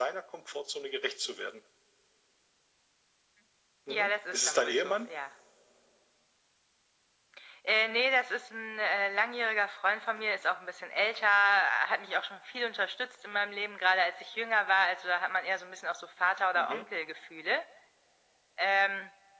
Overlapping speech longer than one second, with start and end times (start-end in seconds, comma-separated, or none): 3.9-5.1